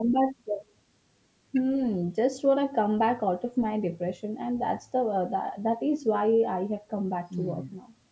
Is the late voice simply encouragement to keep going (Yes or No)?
No